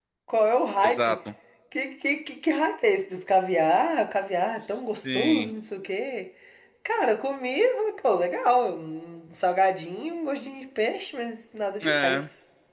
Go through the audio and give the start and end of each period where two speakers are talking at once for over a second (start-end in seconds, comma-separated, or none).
none